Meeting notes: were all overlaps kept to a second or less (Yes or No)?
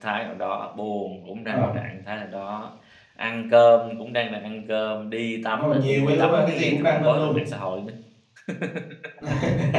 No